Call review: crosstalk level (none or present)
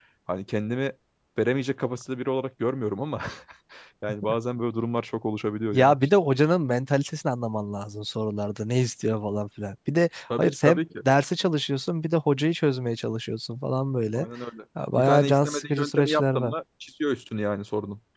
present